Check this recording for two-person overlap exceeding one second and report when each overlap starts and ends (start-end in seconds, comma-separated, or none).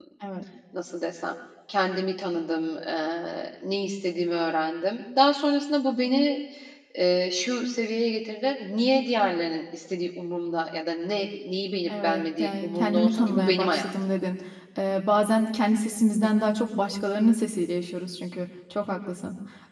12.0-13.9